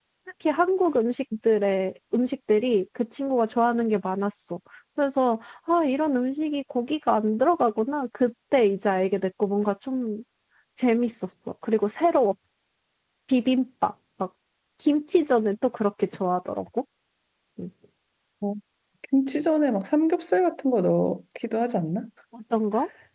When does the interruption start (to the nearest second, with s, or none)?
none